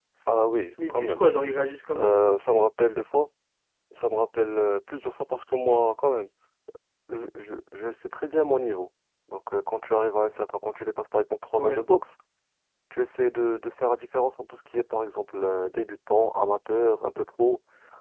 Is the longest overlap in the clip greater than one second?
No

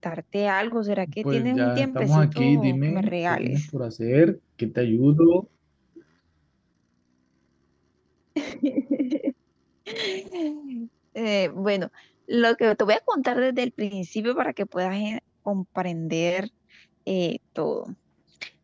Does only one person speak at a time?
No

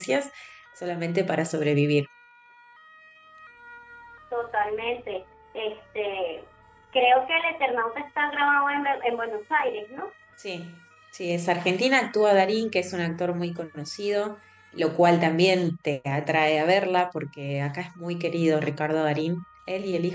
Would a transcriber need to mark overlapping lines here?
No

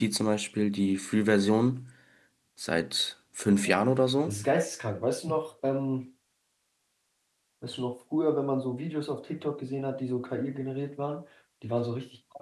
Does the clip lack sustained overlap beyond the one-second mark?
Yes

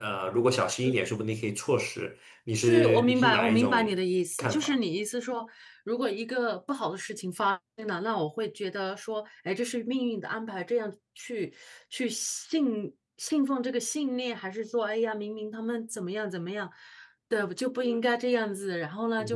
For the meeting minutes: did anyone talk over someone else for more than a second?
Yes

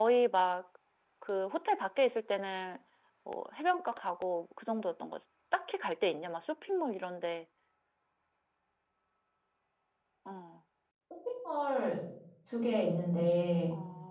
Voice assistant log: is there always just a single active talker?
Yes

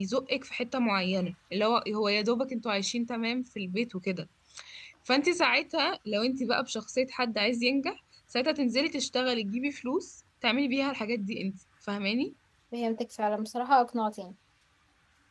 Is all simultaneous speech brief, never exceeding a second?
Yes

